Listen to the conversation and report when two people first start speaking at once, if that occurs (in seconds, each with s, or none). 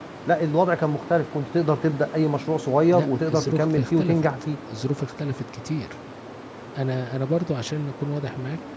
2.9 s